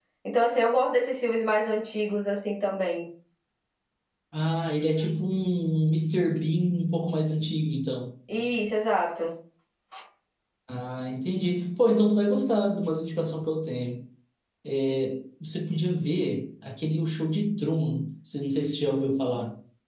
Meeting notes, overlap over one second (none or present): none